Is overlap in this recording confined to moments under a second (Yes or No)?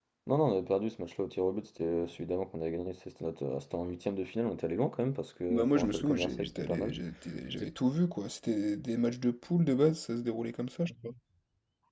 No